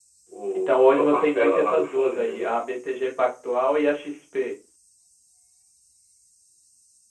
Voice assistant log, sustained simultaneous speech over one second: present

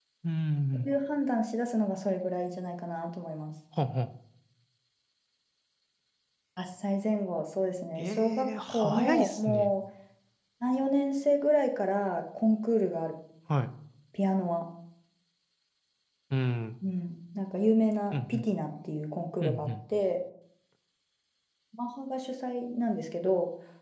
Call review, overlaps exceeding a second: present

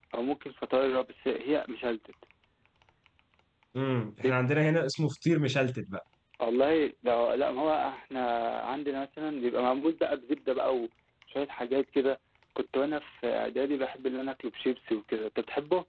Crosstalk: none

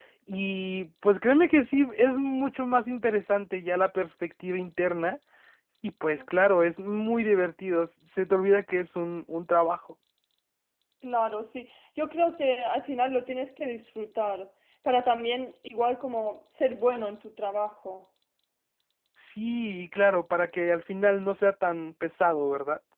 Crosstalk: none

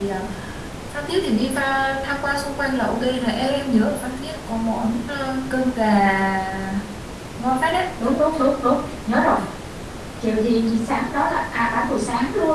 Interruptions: none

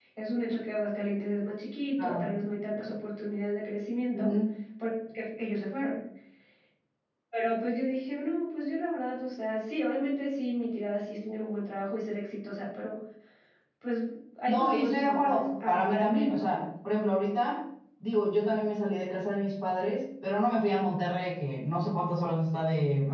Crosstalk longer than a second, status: present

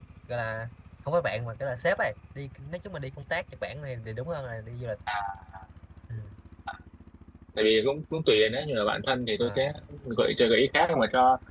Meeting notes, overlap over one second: none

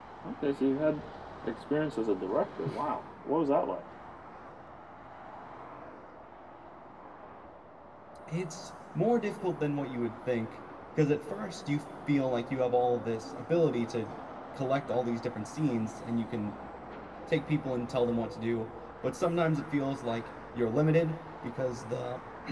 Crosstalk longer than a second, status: none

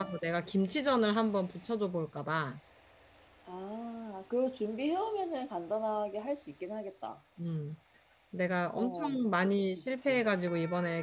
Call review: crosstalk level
present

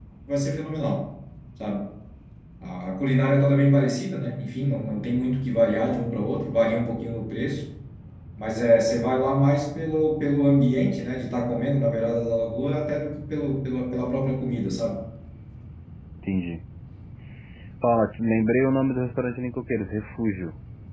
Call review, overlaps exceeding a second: none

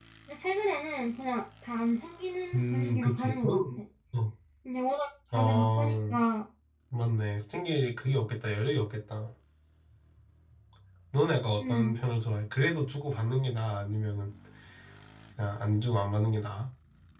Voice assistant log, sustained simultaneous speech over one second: present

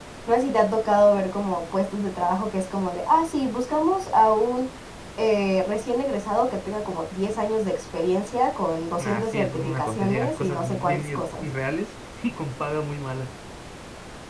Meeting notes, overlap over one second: present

